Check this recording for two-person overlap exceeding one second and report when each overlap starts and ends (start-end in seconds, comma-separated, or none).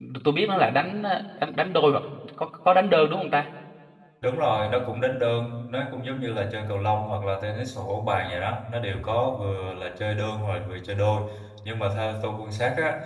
none